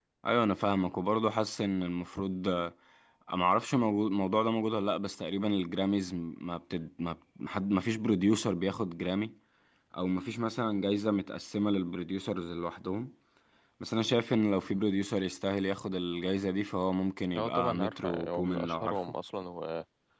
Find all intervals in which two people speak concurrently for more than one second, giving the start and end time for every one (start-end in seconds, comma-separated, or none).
17.4-19.0